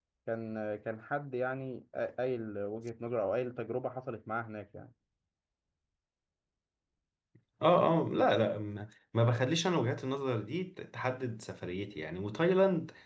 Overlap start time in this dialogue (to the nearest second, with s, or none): none